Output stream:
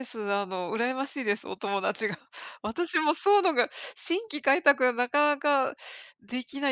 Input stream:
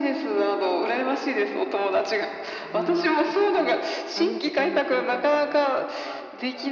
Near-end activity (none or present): present